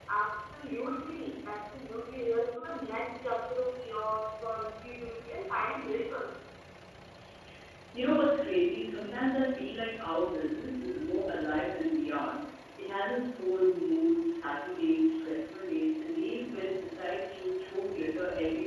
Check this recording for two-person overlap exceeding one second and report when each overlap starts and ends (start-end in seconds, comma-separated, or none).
none